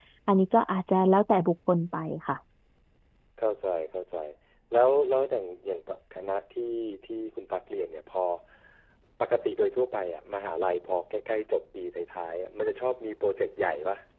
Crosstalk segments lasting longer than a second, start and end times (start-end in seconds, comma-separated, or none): none